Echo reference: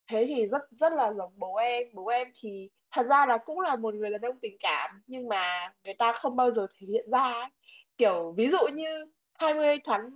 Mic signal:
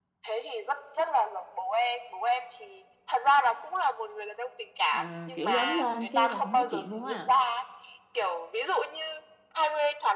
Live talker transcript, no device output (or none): ờ, kiểu lớn lên cái là không nói chuyện luôn á